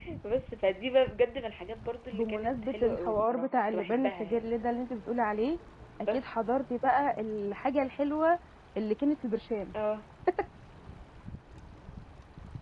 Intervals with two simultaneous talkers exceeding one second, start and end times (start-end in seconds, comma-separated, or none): 2.1-4.5